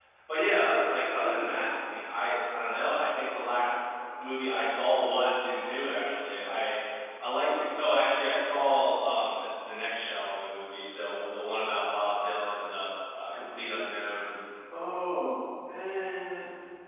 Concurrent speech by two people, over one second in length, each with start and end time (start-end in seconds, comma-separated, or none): none